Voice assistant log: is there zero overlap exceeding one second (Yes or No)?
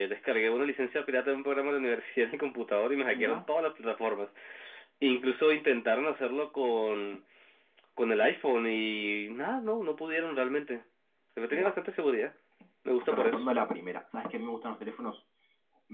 Yes